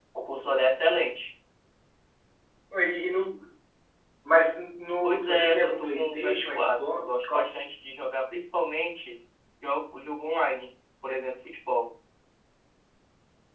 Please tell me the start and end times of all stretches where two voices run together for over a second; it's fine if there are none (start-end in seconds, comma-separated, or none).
5.0-7.5